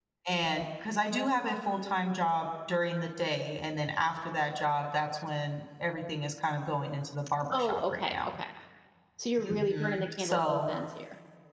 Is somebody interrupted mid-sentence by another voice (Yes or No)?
Yes